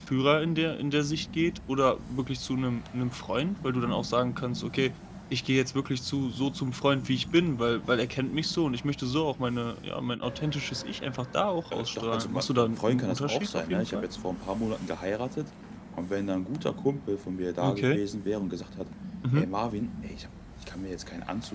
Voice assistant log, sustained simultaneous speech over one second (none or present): present